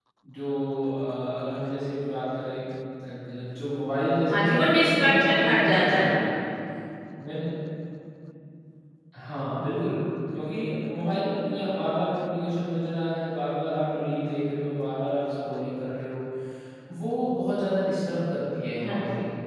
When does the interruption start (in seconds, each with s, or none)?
4.3 s